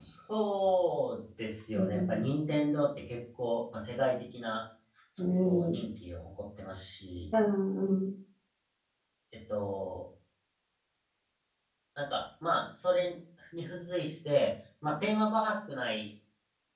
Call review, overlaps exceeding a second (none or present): none